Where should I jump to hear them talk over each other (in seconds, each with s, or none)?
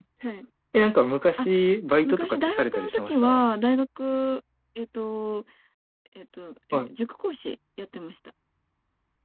2.0 s